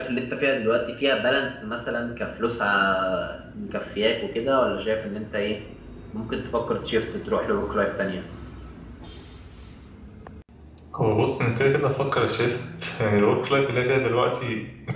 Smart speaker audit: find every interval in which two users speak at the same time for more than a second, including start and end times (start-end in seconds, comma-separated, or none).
none